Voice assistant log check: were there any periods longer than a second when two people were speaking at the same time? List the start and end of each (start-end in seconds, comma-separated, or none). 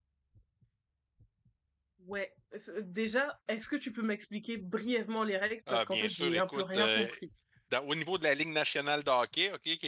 5.7-7.1